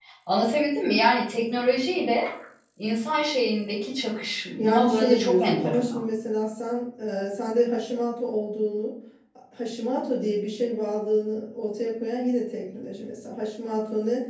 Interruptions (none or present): present